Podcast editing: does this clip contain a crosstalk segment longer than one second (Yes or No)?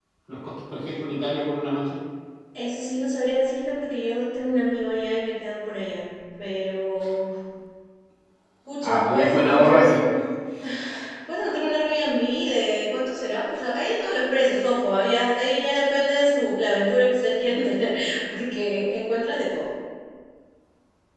Yes